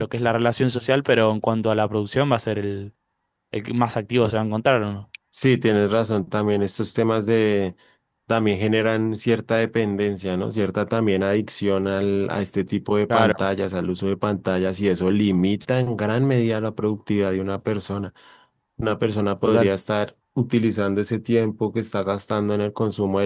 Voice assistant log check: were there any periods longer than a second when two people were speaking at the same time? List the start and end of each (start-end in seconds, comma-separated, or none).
none